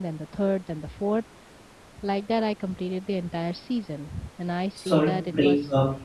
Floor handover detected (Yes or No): Yes